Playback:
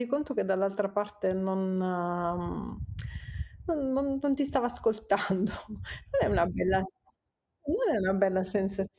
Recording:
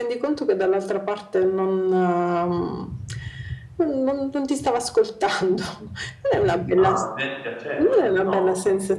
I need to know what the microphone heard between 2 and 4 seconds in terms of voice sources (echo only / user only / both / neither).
echo only